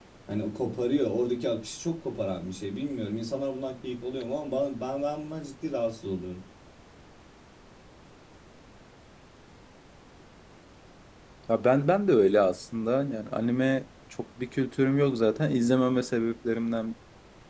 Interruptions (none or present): none